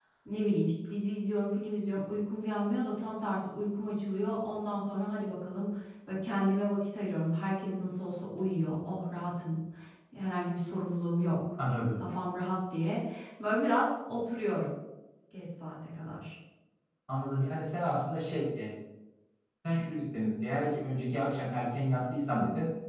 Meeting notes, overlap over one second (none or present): none